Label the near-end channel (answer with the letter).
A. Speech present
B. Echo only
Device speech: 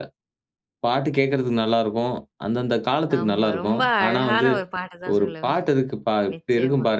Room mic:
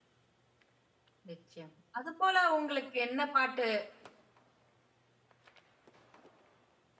A